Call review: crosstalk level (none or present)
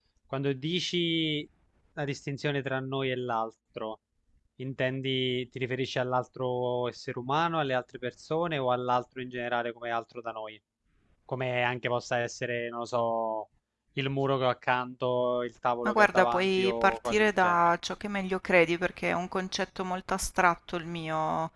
present